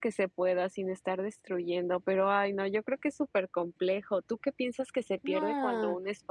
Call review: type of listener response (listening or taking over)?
listening